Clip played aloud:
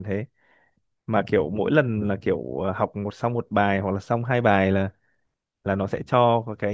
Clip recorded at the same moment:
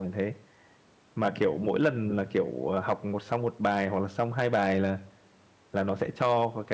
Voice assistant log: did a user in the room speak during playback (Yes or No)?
No